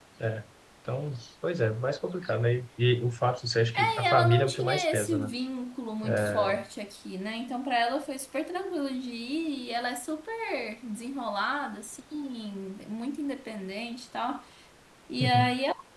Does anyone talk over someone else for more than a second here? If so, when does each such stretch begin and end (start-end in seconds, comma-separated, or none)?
3.7-5.3